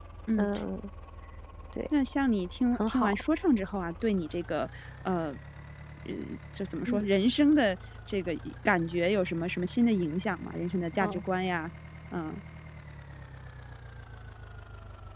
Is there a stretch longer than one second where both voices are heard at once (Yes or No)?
No